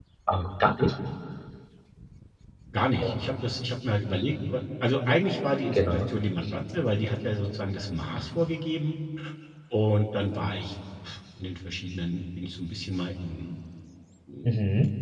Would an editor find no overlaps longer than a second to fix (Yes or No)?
Yes